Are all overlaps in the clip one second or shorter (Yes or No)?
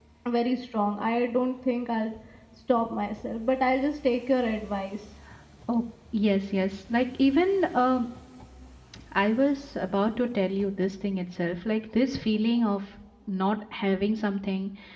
Yes